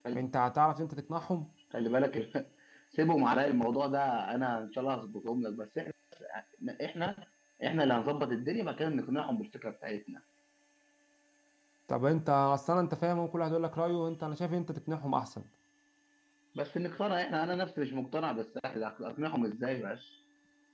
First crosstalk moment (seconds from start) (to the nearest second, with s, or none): none